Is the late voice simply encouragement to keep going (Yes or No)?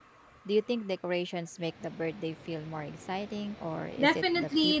No